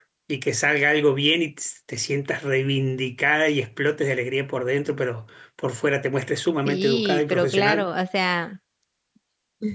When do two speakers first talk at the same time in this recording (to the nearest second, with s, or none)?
7 s